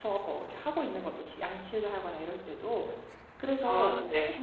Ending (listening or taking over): listening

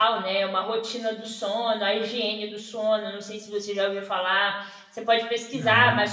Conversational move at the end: listening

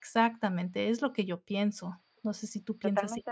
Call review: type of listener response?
taking over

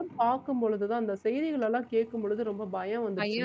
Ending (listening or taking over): taking over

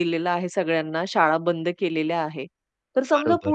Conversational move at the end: listening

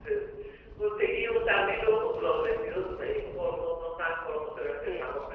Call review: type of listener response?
listening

